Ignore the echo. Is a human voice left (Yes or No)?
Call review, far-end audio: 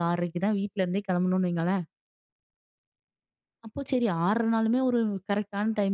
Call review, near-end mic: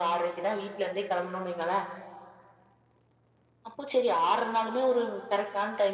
No